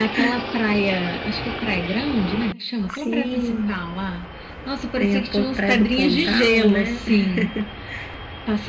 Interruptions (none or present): present